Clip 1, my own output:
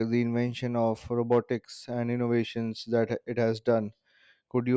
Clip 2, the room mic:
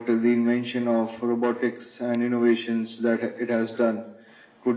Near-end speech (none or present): none